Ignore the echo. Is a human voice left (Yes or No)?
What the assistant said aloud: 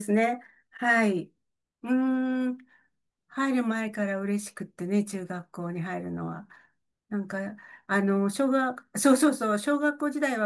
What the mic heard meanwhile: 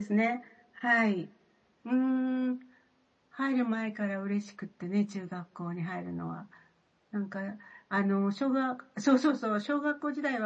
No